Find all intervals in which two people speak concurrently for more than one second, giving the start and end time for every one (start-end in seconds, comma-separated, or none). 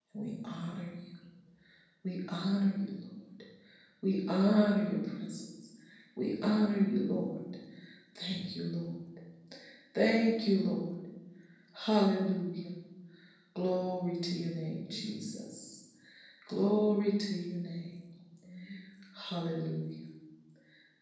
4.1-5.4